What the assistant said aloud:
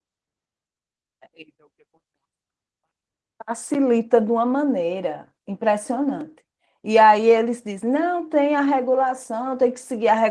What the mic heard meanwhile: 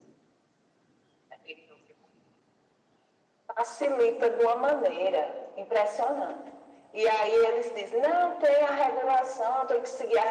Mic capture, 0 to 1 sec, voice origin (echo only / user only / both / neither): neither